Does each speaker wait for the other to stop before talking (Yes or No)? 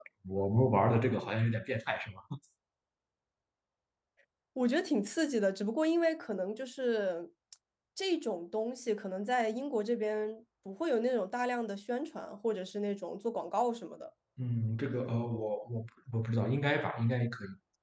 Yes